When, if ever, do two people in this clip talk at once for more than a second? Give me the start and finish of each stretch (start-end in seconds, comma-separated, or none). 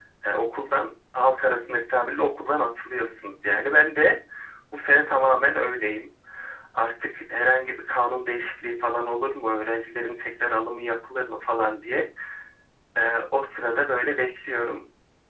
none